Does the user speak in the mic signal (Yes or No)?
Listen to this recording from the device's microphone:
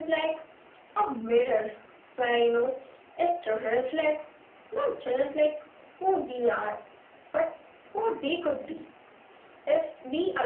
No